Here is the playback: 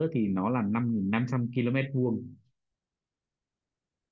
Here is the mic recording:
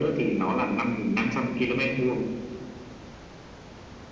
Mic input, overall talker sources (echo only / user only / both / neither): echo only